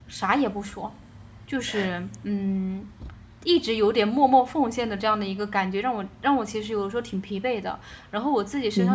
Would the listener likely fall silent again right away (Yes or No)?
Yes